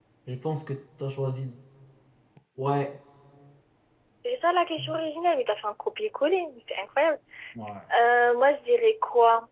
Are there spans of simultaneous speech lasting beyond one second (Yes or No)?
No